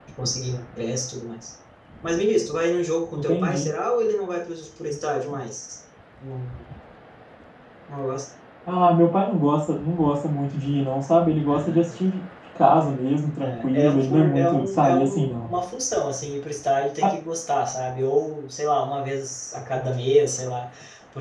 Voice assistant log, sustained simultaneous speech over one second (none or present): present